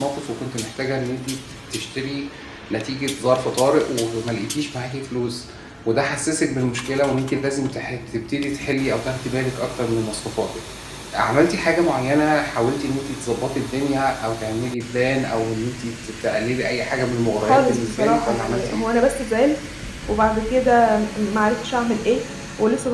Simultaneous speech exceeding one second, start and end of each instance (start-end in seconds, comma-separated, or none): 17.4-18.8